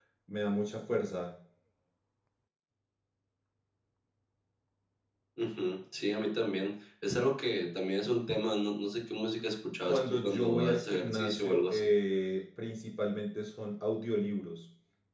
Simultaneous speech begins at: 9.8 s

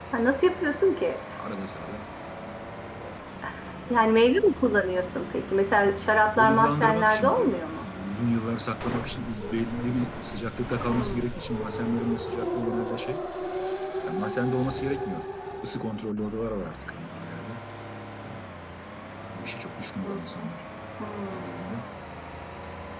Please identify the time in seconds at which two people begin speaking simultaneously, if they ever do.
6.4 s

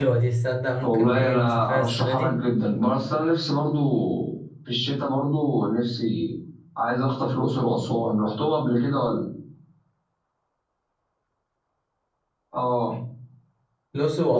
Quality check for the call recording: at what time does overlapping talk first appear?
0.8 s

